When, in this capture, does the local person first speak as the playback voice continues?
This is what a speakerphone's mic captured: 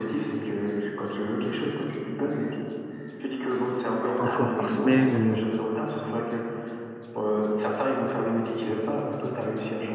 4.2 s

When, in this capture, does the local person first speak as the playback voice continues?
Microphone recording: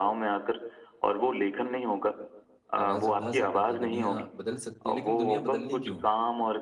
2.8 s

